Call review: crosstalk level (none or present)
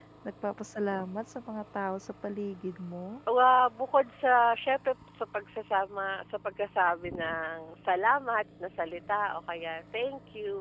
none